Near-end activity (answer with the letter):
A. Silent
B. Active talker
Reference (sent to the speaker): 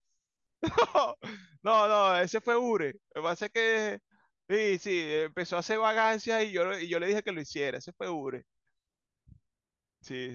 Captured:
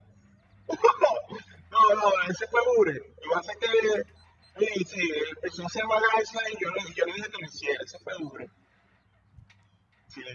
A